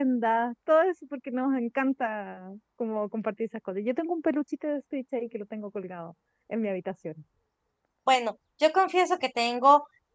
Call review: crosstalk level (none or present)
none